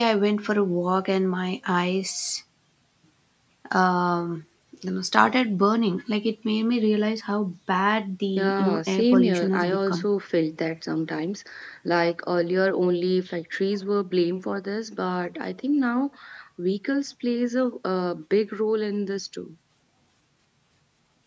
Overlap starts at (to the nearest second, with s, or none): 8 s